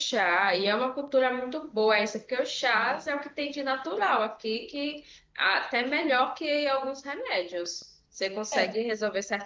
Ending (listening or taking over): listening